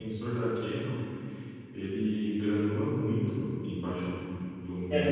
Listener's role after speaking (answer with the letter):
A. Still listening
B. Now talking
B